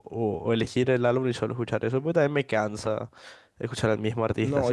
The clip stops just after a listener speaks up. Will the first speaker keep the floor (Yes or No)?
No